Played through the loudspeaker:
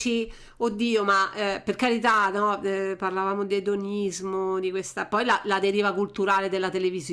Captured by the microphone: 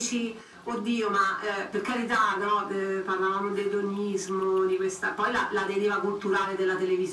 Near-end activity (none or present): none